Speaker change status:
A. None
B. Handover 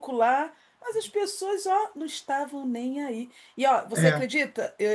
A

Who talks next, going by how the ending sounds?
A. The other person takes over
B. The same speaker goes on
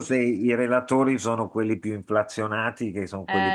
B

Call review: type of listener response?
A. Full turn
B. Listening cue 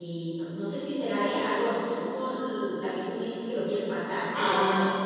A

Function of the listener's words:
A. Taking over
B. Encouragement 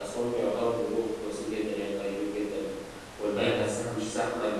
B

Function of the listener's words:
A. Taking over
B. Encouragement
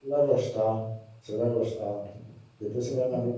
B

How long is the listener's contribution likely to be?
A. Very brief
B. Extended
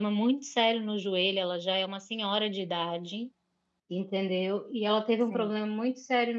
A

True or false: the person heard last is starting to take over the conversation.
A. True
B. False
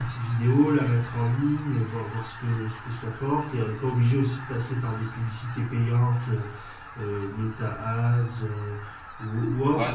A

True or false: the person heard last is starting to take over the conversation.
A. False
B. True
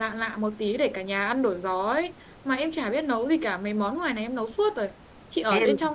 A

